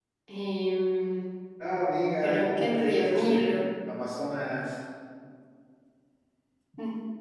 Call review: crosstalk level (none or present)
present